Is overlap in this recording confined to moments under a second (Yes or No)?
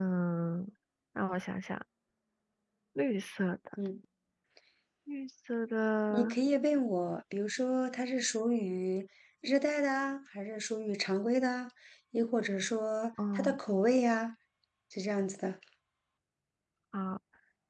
Yes